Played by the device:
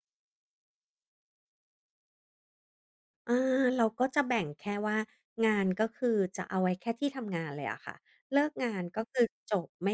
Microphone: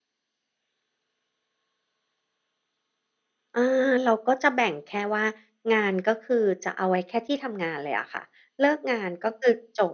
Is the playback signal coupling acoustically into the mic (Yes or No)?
Yes